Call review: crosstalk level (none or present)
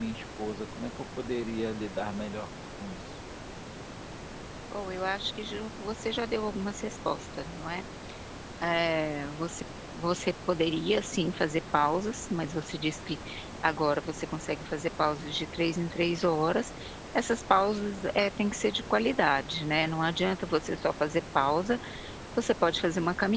none